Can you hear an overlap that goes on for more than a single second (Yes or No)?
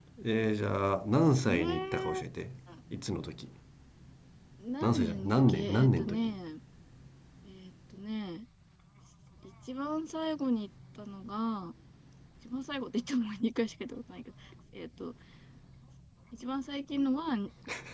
Yes